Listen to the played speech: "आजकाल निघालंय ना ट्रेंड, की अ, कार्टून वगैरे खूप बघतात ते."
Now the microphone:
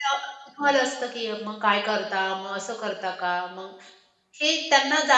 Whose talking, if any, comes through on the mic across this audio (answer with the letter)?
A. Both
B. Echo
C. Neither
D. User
D